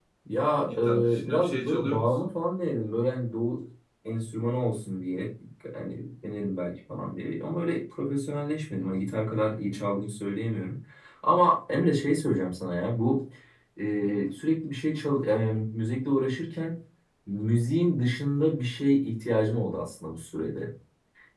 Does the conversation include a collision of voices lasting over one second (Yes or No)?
Yes